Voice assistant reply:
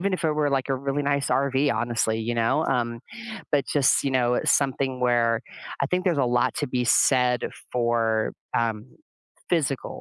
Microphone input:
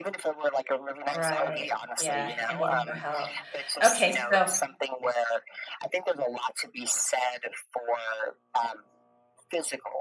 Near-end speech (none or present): present